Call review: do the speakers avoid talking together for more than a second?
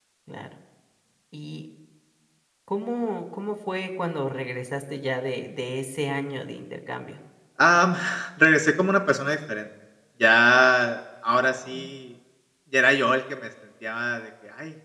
Yes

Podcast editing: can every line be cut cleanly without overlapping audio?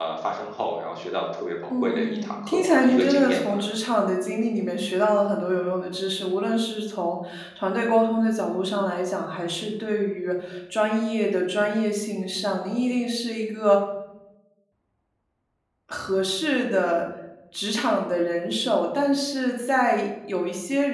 No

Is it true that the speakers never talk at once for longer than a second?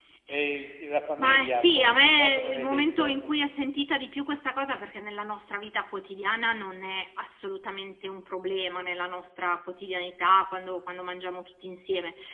No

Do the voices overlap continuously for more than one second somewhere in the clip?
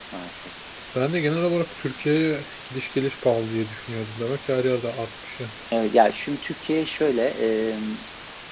No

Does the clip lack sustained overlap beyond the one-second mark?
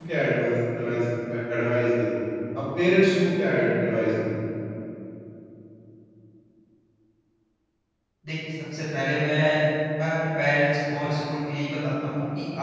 Yes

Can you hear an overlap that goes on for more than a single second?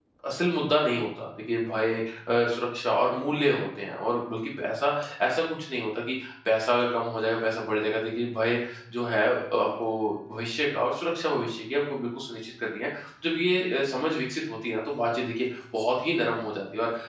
No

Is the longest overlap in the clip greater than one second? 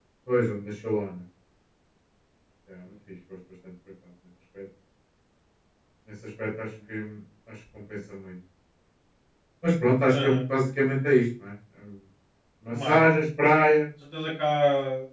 No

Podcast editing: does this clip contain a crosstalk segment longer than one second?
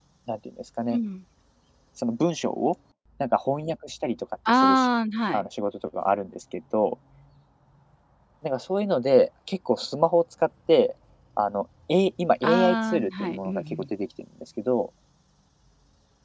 Yes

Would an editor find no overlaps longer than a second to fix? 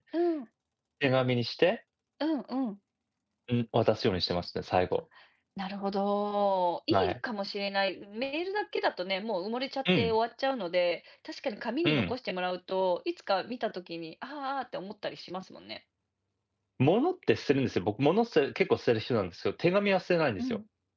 Yes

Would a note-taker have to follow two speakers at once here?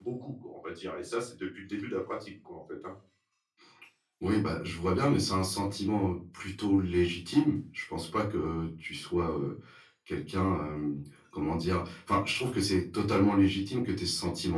No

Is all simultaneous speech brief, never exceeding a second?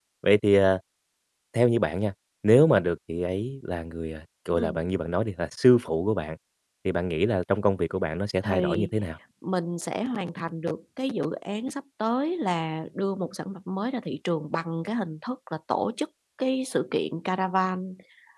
Yes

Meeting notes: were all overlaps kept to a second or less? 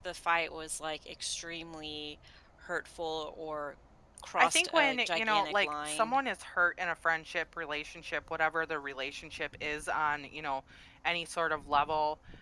No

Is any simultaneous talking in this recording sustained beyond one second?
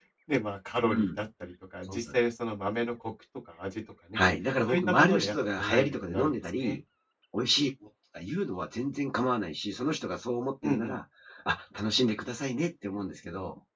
Yes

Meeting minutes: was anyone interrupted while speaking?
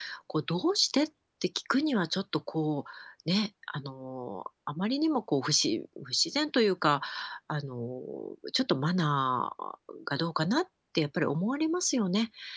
No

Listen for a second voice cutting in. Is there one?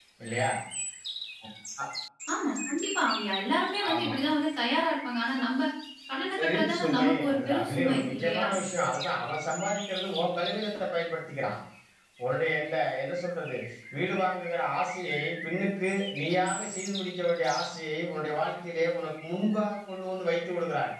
Yes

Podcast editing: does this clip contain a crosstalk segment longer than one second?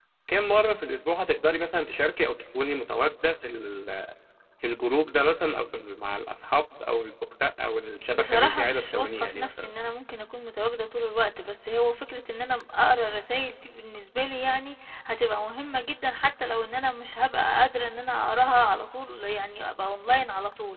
Yes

